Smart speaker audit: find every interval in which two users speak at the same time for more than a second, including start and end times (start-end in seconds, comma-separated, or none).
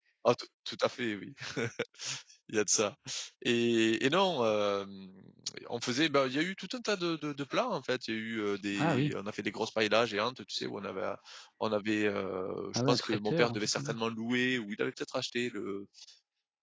12.8-14.0